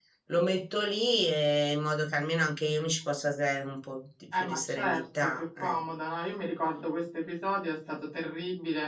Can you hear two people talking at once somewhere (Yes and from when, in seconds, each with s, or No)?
Yes, from 4.3 s